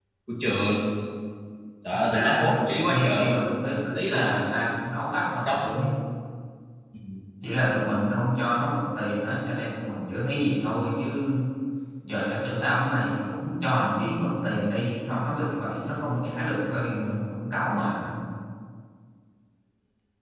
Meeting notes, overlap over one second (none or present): present